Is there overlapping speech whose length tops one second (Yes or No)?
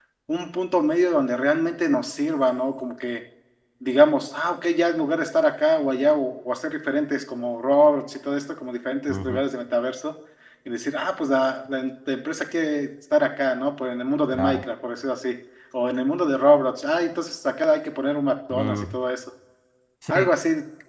No